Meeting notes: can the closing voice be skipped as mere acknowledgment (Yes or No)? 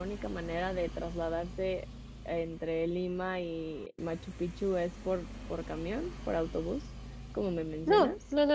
No